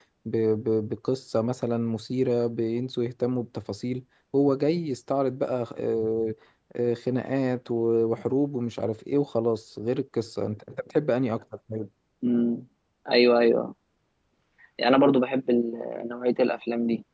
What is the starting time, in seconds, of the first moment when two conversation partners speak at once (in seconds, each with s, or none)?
none